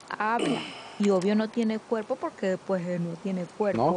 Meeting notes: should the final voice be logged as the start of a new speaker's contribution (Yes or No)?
Yes